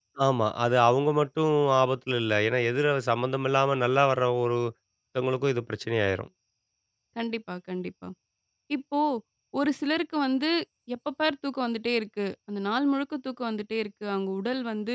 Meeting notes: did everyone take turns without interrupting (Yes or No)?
Yes